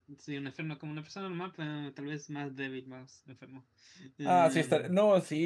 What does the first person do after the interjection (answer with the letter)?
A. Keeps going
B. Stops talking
B